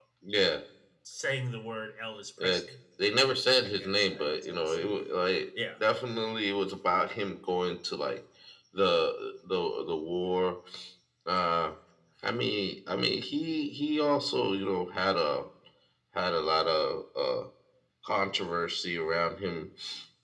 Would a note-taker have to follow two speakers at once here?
Yes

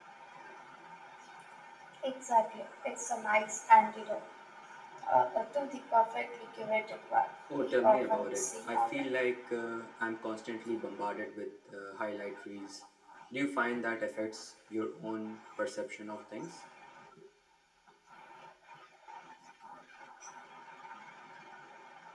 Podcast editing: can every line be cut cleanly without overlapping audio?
No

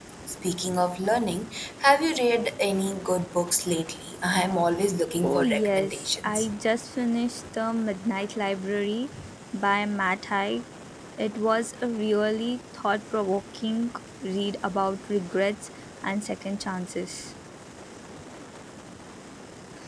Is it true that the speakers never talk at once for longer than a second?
No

